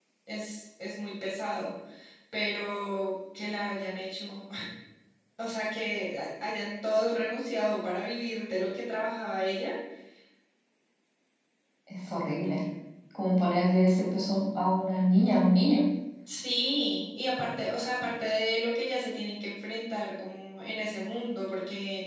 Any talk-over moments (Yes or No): No